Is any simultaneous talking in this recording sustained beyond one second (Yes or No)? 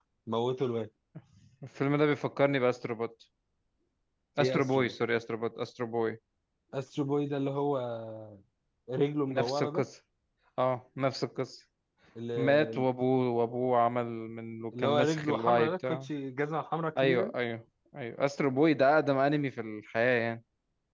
Yes